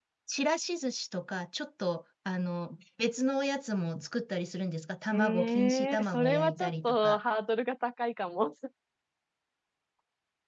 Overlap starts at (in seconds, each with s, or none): 5.1 s